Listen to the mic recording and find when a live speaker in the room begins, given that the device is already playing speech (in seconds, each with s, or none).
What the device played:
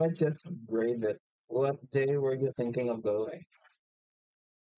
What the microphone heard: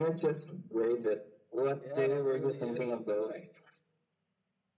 1.8 s